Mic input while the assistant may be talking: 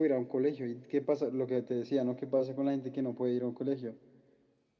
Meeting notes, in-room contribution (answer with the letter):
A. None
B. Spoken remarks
A